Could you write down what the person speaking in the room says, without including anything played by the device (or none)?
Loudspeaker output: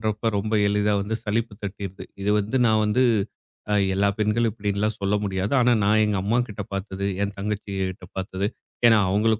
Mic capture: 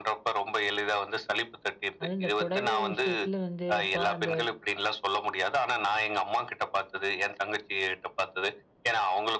அதுவும் இந்த புடவை விஷயத்துல வந்து, அப்பா அந்த